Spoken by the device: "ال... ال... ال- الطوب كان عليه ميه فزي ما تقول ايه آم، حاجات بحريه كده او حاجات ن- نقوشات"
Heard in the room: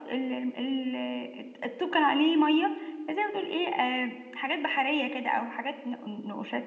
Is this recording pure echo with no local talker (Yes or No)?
Yes